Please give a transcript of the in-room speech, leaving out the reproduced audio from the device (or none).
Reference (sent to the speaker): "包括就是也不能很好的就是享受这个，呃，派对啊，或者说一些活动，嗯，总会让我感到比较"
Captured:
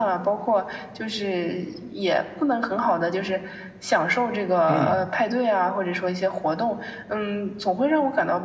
嗯。